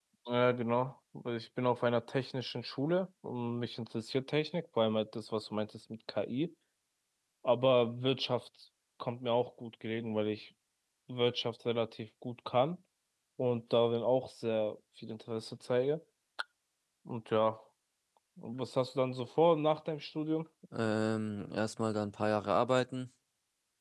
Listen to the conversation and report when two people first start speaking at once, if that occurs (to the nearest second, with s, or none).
none